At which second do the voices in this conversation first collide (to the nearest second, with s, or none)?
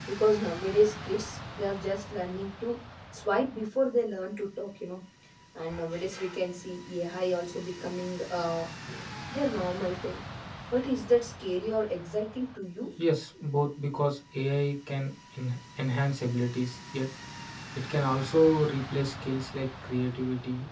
none